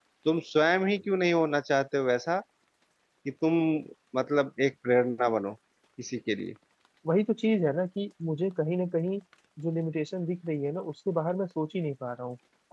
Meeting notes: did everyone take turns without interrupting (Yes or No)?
Yes